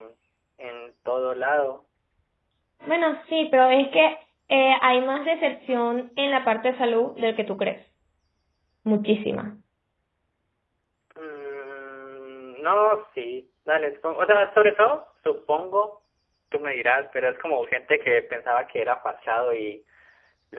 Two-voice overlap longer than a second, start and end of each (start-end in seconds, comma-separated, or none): none